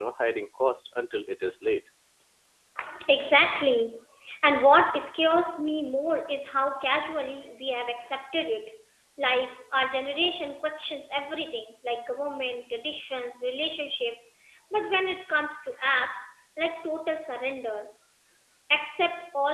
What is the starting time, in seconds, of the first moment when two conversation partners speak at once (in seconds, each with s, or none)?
none